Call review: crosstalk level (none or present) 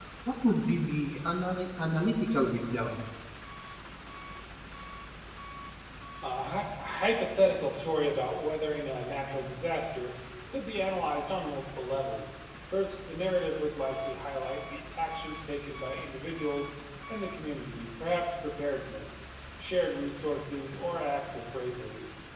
none